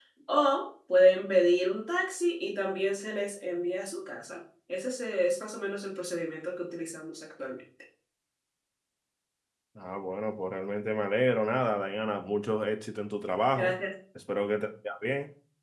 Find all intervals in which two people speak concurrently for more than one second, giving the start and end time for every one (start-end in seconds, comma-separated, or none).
none